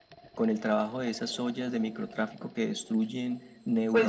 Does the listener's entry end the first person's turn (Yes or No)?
Yes